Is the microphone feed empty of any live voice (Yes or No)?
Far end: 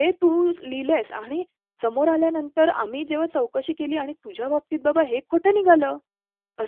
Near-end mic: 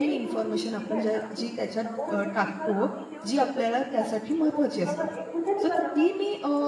No